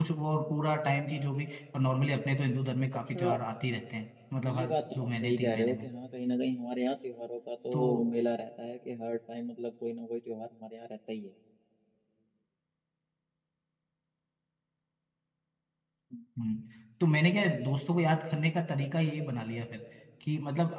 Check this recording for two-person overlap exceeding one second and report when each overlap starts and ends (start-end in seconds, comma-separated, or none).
4.5-5.9